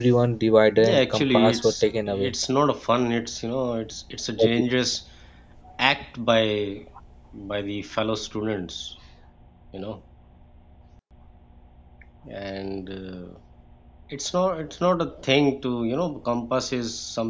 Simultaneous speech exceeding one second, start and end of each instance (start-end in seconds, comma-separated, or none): 0.8-2.3